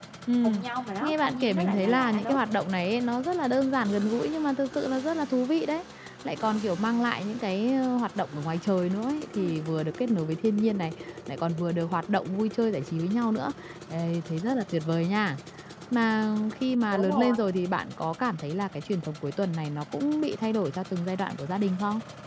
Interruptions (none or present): present